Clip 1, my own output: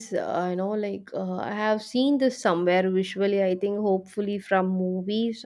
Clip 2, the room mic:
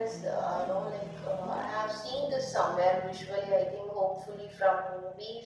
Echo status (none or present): present